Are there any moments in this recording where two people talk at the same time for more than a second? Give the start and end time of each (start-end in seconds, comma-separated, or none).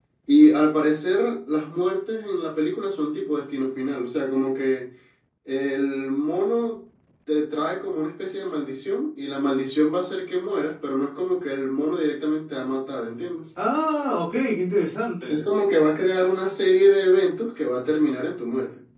none